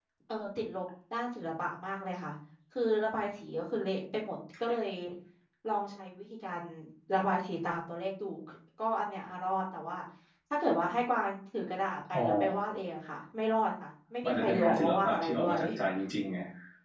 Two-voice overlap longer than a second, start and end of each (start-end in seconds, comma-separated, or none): 14.2-15.6